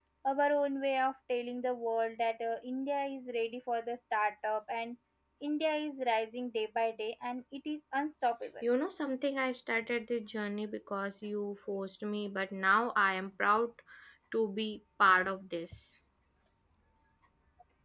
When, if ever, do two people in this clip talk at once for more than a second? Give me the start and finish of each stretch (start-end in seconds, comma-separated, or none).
none